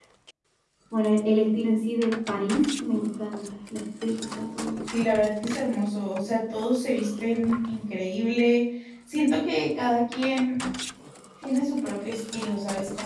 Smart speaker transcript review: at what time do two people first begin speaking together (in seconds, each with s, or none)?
none